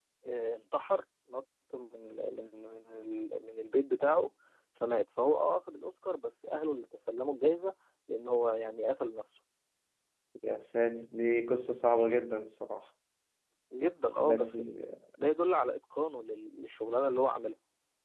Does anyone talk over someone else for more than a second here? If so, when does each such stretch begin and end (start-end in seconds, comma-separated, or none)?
none